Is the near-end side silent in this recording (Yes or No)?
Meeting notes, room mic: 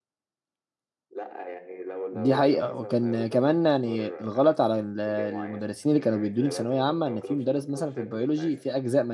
No